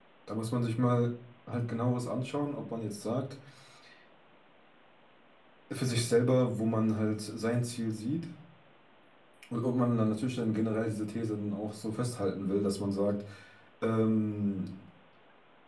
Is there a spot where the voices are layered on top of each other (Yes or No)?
No